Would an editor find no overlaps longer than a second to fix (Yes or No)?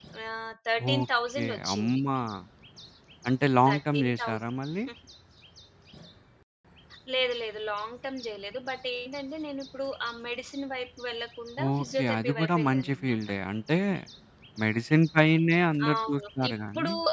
No